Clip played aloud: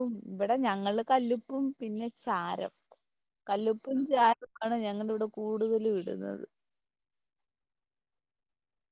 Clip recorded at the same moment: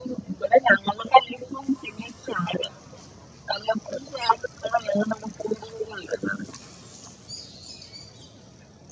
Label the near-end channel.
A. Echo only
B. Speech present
A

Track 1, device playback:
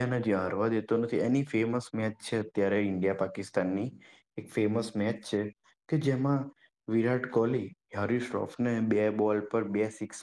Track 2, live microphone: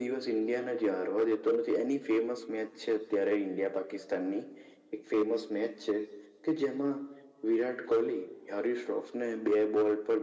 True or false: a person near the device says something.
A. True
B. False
B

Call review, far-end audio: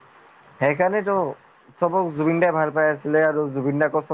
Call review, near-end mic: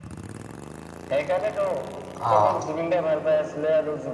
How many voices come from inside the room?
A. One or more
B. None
A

